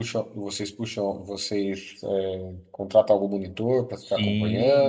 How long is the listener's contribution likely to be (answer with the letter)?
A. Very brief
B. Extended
B